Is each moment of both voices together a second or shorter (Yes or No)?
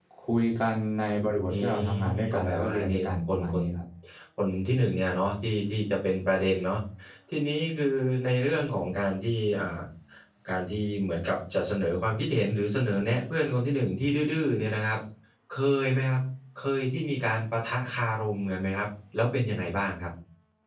No